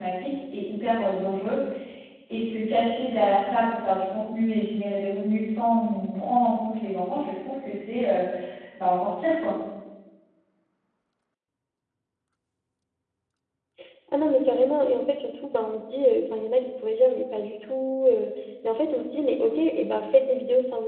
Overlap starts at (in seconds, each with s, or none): none